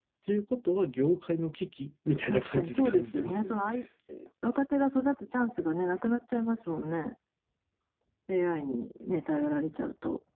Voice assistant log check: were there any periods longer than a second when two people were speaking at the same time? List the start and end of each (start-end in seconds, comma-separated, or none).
2.3-3.5